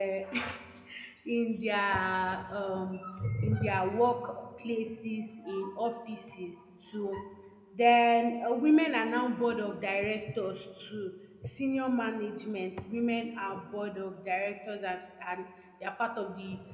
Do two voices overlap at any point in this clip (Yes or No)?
No